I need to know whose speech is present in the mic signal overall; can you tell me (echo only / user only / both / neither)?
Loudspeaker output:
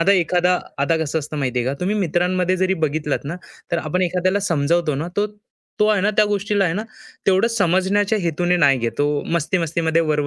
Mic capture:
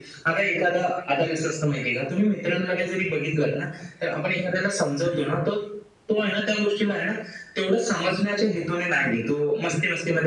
echo only